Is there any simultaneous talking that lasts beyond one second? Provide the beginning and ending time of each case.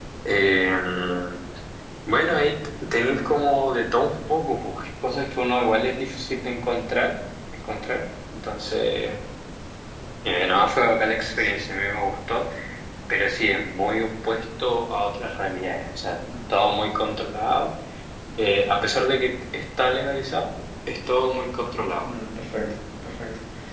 none

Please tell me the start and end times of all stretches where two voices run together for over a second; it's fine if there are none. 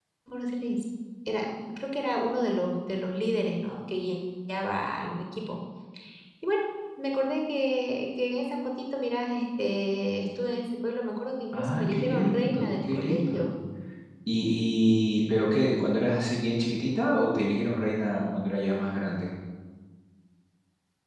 11.5-13.4

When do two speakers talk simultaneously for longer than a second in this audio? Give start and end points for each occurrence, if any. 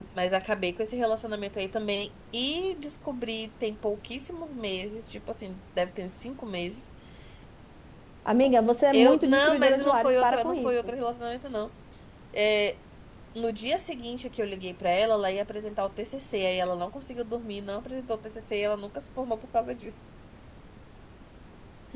8.9-10.9

